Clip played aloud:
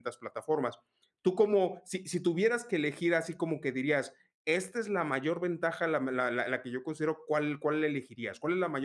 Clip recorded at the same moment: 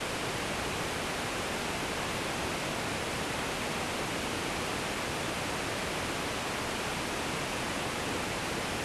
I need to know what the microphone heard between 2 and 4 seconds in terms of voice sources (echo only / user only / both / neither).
neither